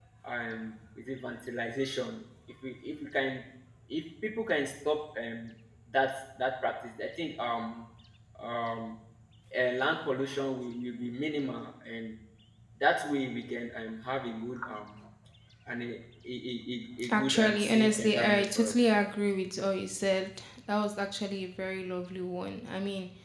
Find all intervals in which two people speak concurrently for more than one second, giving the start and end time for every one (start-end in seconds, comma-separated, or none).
17.1-18.8